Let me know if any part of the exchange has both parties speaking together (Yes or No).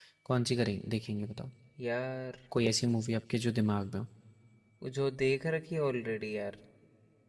No